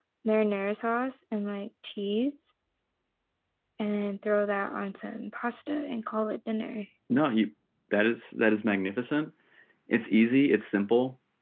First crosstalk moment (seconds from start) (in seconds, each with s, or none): none